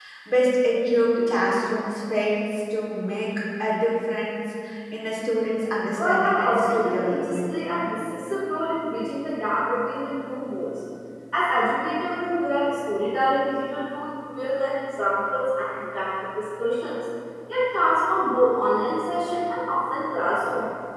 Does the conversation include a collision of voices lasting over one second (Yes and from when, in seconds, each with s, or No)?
Yes, from 6.0 s